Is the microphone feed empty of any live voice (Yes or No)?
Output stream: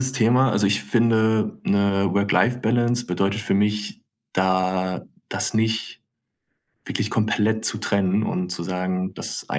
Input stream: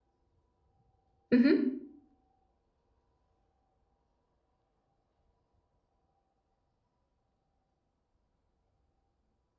No